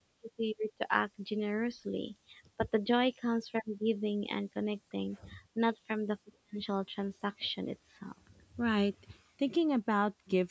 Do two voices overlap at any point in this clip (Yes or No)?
No